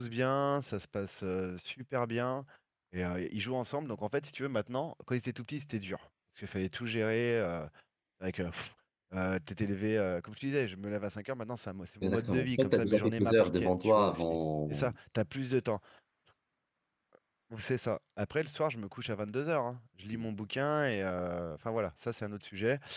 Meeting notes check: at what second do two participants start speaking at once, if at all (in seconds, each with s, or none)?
12.0 s